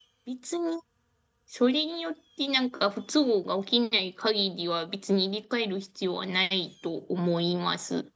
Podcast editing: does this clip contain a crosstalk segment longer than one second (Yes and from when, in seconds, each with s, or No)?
No